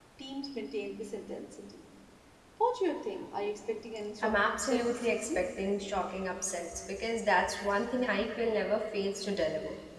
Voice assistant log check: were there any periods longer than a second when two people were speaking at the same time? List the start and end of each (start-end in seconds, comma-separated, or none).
4.2-5.4